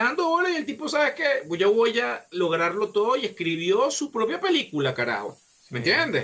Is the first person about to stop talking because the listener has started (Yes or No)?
No